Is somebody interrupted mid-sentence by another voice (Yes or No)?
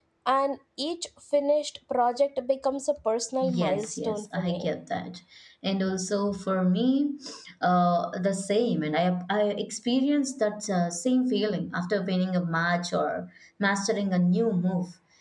Yes